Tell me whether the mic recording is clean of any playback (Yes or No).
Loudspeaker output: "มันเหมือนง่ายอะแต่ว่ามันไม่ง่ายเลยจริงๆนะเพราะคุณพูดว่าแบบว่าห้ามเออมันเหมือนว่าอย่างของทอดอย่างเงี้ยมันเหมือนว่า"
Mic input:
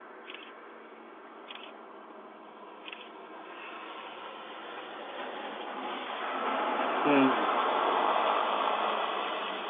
Yes